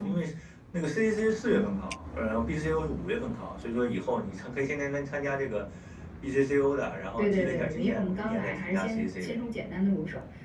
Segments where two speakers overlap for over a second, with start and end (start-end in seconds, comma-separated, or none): 7.2-9.4